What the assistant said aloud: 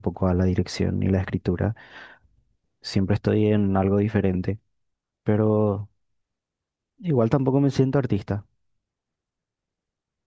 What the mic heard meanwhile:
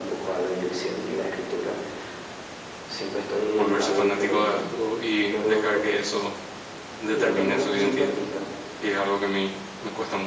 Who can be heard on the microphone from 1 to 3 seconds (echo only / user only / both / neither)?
echo only